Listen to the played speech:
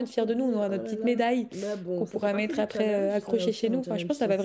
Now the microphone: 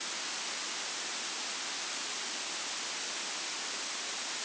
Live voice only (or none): none